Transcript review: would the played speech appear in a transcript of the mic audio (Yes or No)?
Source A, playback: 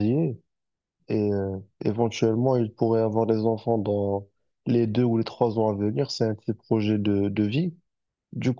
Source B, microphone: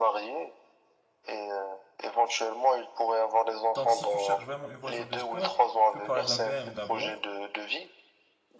Yes